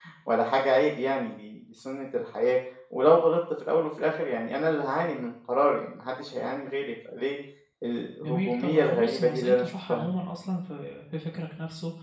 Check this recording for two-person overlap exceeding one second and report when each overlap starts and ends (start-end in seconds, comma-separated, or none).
8.2-10.1